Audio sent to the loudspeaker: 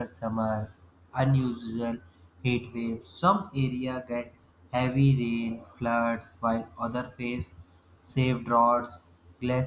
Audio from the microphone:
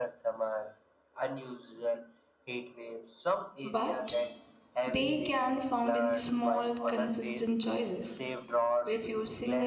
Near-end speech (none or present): present